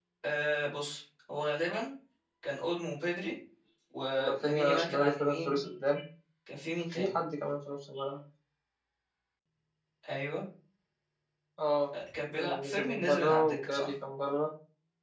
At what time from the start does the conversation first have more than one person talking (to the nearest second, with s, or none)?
4 s